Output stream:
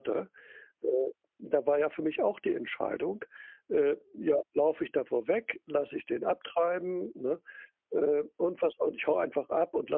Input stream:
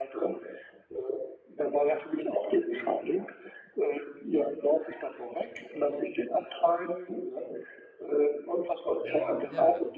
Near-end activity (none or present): present